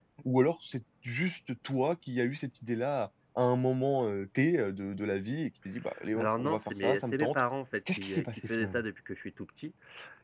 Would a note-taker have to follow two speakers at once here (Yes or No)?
Yes